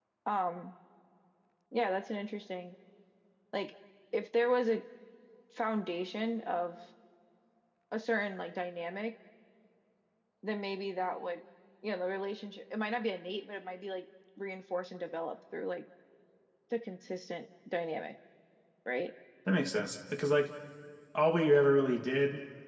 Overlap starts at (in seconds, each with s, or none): none